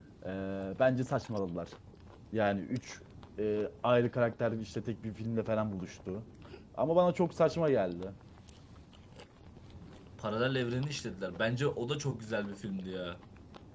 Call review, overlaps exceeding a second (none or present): none